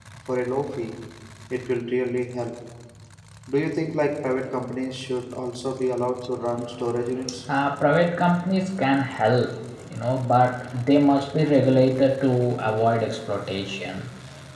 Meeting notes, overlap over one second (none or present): none